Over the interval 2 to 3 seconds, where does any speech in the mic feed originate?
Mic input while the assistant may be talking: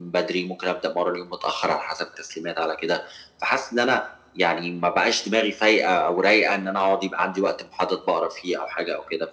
echo only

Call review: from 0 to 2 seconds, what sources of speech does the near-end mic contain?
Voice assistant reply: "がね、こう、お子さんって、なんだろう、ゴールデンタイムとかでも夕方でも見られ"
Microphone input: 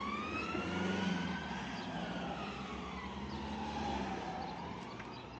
neither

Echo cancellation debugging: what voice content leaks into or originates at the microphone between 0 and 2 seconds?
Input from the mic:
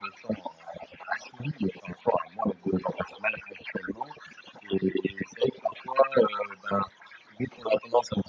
echo only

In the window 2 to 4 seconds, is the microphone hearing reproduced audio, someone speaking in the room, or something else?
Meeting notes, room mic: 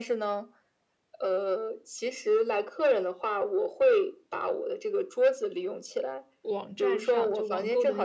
echo only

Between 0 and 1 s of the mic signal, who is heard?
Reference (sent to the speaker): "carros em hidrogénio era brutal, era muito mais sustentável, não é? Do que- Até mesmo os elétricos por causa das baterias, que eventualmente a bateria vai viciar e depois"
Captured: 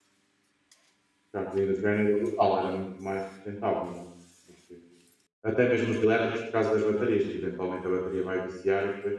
neither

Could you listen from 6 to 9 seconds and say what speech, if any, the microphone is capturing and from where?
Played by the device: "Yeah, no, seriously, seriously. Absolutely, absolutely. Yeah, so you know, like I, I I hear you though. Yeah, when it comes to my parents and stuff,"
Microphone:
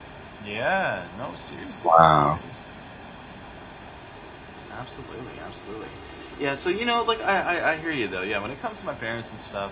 echo only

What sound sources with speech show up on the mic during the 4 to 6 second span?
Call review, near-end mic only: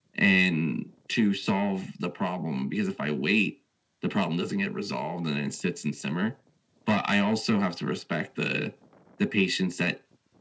echo only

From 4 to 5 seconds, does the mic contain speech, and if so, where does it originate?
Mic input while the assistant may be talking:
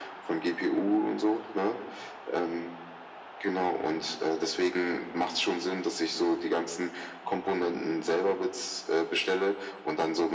echo only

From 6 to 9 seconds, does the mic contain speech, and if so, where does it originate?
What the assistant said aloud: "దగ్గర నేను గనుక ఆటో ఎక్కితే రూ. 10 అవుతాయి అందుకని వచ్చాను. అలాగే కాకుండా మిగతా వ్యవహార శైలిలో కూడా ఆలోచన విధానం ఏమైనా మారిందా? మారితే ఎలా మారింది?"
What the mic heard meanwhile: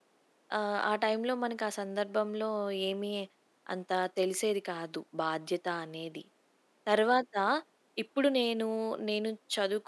user only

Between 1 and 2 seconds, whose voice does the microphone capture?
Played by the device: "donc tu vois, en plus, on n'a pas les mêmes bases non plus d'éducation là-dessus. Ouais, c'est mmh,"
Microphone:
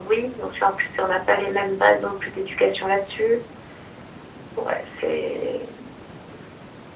echo only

